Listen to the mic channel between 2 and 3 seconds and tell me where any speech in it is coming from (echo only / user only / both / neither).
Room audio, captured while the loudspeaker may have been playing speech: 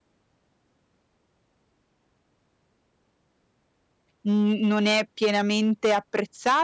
neither